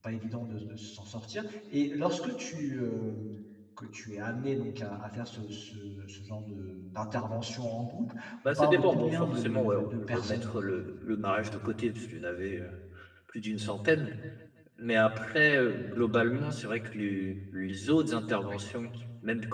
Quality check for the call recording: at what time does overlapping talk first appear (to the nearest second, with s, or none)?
8 s